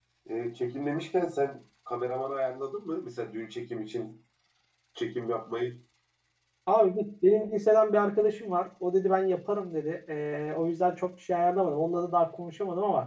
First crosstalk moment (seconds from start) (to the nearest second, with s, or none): none